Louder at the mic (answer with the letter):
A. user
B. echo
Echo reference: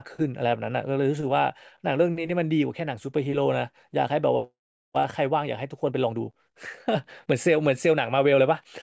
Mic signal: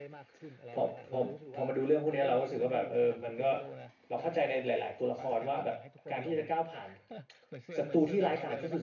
A